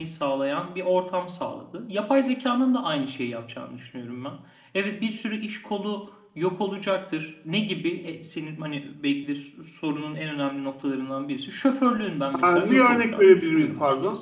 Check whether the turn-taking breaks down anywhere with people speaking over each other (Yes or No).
Yes